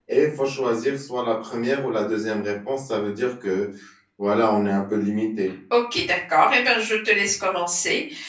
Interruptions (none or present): none